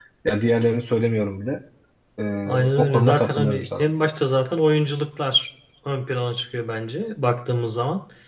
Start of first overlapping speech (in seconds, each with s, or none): 2.4 s